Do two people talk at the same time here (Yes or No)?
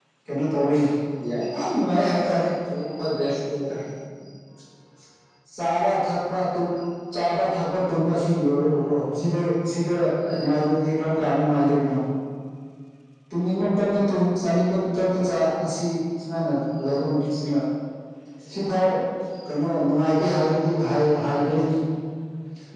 No